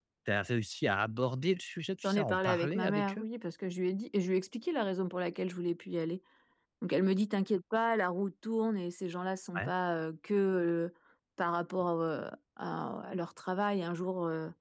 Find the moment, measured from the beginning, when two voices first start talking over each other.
2 s

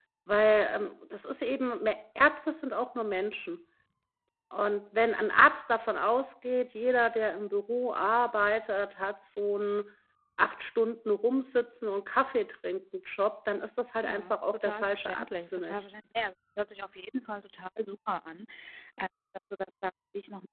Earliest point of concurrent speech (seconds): 14 s

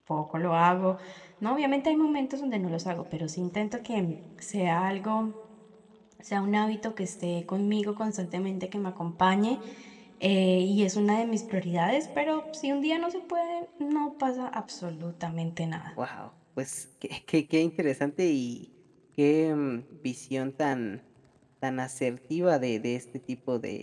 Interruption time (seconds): none

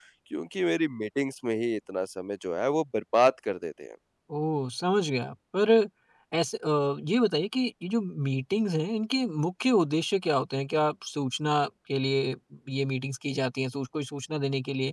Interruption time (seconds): none

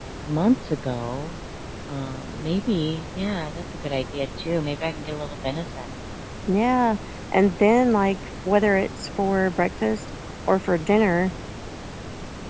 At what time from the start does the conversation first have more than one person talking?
none

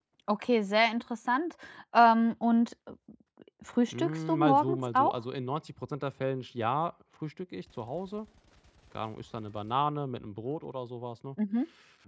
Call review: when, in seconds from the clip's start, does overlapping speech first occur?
4 s

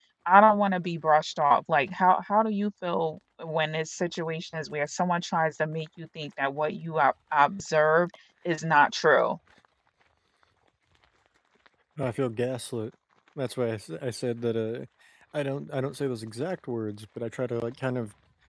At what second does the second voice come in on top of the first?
none

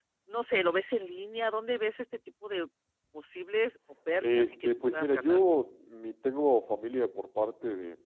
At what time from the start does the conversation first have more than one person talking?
4 s

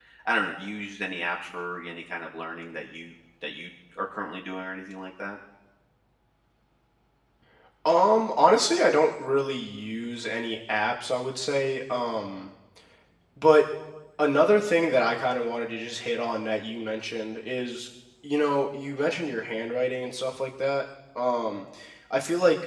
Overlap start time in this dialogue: none

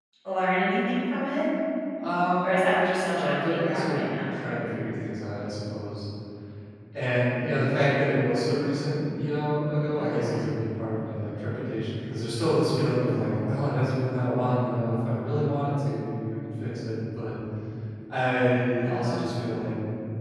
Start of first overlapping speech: 2 s

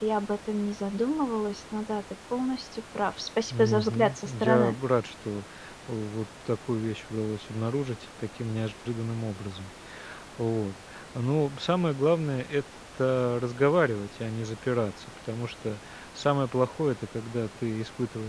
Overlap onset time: 4 s

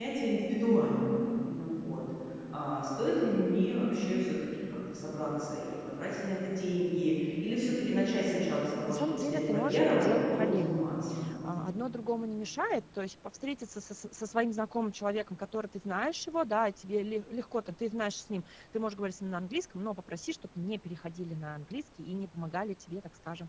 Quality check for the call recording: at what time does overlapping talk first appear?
9 s

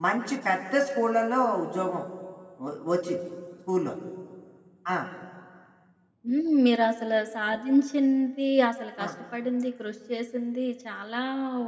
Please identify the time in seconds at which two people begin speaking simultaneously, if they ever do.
none

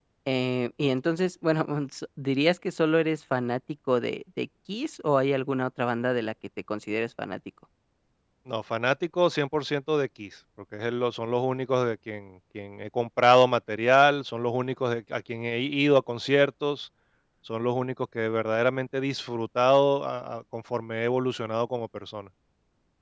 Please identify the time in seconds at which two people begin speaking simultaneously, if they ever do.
none

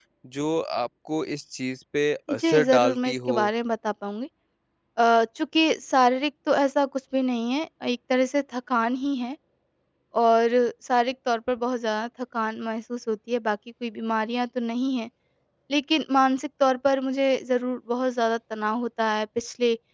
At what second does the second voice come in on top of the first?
2 s

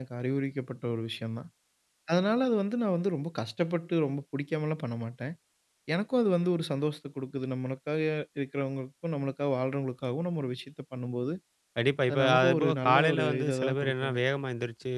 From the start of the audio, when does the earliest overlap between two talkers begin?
12 s

